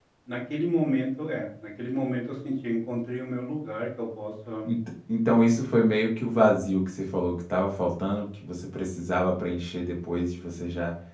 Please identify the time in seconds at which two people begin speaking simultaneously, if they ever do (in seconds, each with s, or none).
none